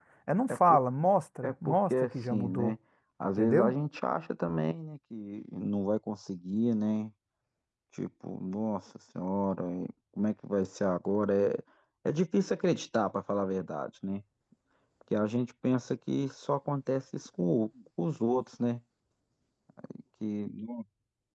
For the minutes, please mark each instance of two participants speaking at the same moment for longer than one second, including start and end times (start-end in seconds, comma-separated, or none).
1.5-2.7